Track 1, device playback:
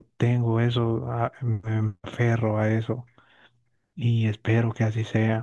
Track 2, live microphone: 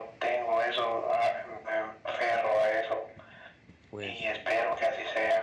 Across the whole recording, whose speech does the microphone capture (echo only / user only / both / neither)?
both